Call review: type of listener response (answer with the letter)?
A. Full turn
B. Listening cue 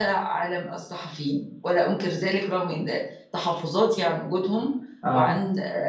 B